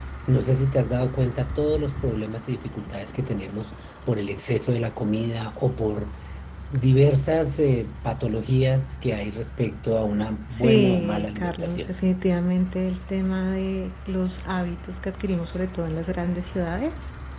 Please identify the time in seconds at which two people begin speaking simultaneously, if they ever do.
11 s

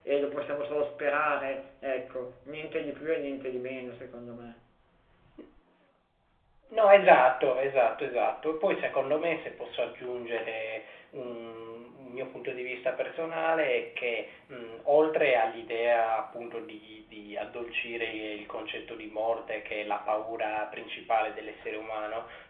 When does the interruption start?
none

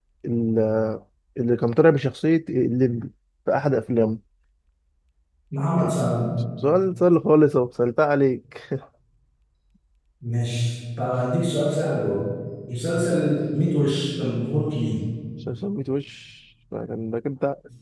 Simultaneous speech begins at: none

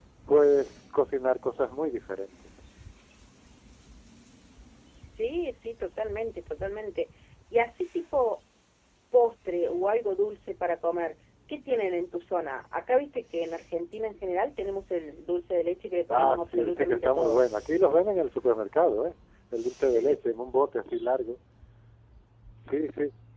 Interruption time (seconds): 16 s

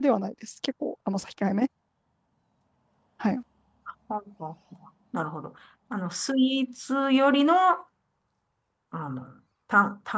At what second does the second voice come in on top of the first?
none

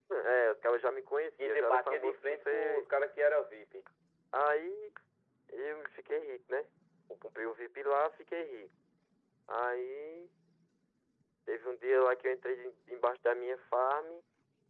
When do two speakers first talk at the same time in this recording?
1 s

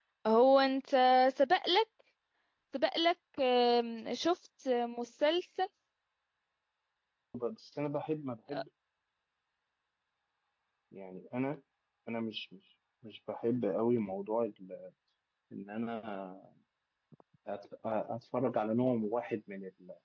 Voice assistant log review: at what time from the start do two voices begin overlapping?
none

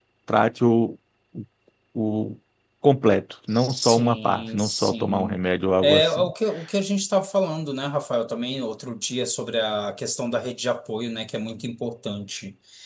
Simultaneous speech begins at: 4 s

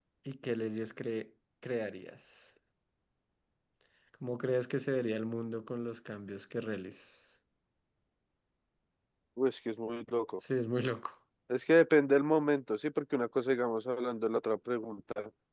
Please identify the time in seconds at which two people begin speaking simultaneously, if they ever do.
none

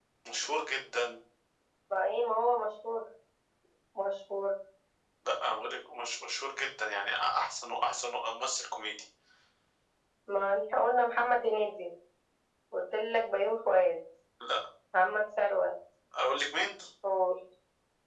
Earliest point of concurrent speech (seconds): none

